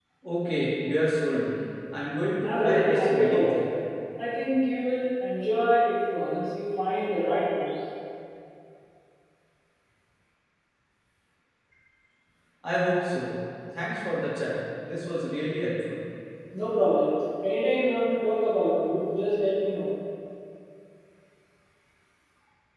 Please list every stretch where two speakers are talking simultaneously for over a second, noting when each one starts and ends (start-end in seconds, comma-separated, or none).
2.4-3.7